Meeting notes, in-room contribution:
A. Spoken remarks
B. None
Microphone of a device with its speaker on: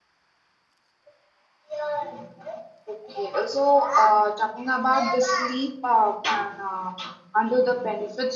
A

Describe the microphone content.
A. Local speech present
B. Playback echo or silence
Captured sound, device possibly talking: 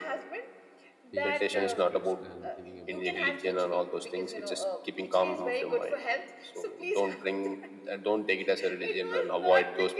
A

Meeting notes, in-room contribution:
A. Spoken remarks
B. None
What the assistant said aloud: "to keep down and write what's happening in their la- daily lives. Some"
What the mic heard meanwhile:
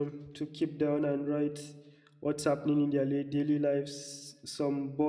B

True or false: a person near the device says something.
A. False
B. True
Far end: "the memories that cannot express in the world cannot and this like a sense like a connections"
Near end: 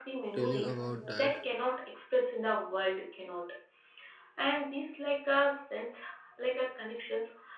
B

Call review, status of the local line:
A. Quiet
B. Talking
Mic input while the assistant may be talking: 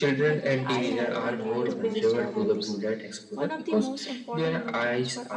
B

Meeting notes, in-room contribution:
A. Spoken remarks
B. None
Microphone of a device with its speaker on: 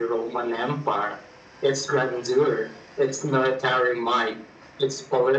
B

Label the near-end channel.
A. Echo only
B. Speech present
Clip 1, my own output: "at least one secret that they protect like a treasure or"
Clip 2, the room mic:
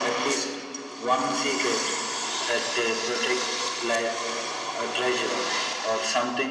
A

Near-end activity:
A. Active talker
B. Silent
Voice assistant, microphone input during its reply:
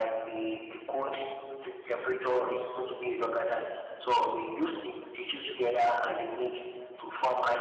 B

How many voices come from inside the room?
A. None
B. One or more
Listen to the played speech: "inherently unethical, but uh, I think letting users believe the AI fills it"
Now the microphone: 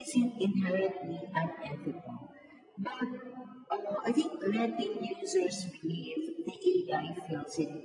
A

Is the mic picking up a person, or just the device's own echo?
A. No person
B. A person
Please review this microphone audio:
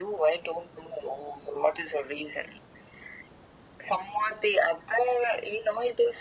A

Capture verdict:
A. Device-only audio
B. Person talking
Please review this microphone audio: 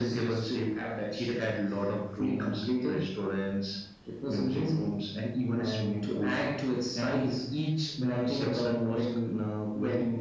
A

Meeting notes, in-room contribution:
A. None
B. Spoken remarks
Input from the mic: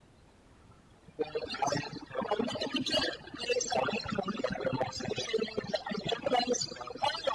A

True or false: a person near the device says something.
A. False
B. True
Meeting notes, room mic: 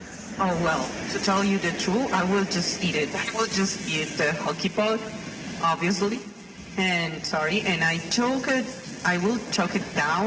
A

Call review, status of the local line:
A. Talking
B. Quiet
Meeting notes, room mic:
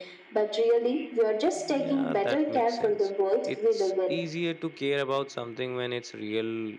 A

